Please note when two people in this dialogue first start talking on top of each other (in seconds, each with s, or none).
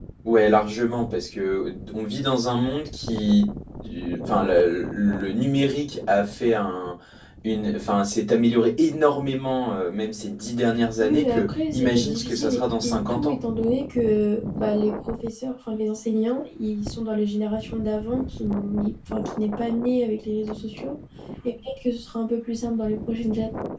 11.0 s